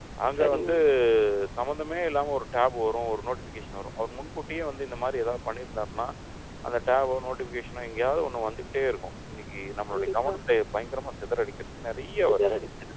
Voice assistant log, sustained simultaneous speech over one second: none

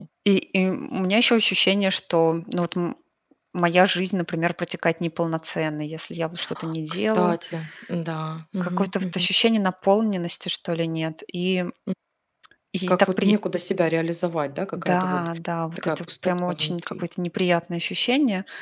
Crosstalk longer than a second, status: present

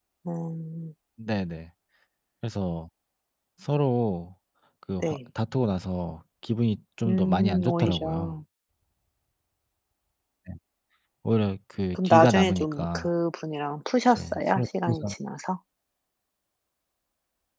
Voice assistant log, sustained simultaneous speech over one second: present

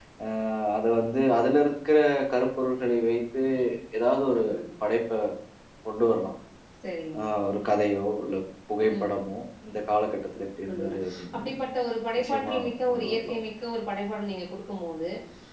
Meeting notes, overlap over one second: present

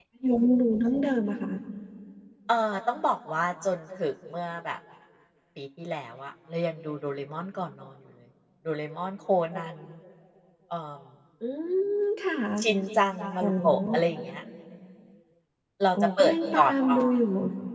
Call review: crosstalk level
present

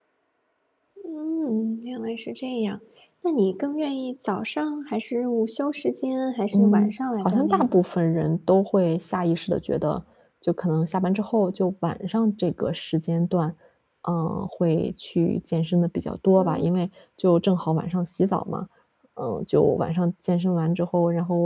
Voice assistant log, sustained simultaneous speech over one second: present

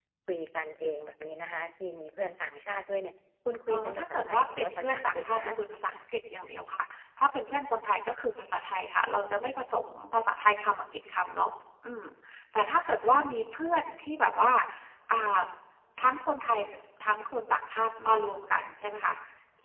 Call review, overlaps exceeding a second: present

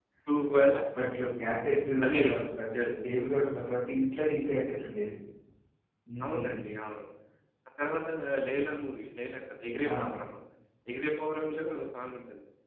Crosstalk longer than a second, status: none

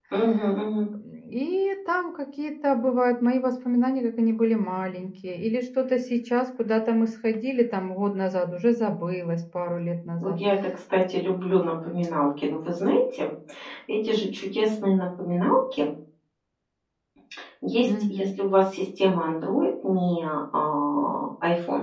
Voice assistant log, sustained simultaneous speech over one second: none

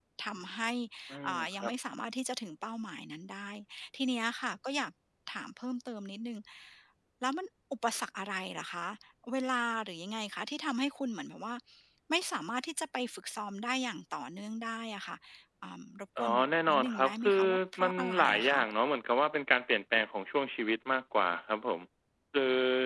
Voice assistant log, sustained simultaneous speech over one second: present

